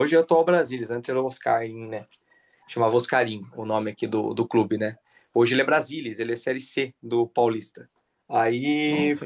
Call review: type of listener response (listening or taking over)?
listening